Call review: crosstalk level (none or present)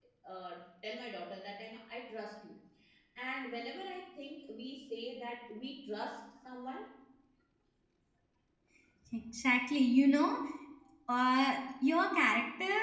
none